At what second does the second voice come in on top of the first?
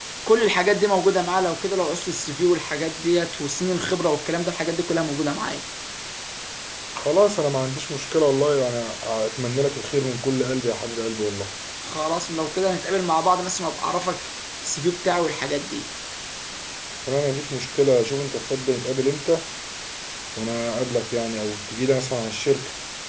none

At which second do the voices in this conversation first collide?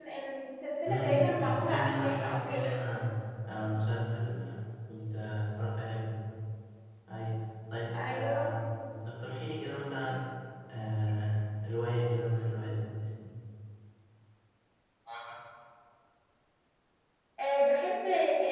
0.8 s

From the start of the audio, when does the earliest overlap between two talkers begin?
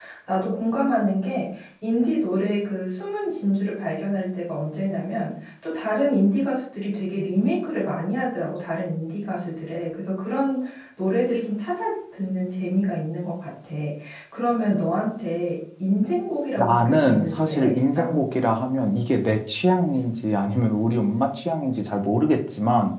16.6 s

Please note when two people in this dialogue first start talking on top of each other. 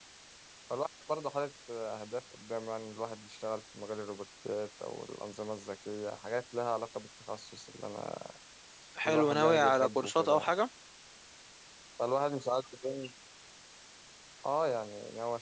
9.1 s

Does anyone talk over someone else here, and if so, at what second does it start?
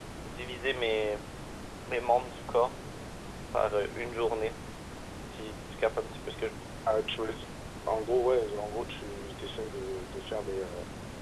none

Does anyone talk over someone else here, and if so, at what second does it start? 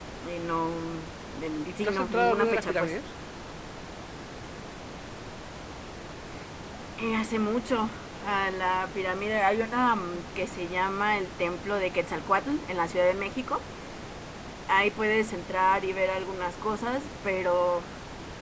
1.7 s

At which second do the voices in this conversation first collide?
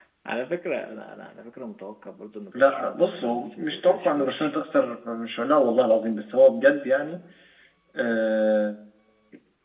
2.5 s

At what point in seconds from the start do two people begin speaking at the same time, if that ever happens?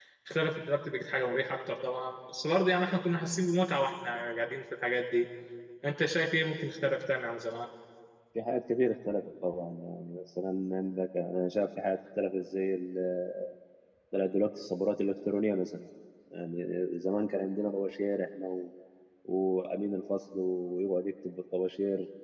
none

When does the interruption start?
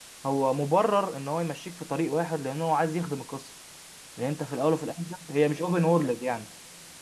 none

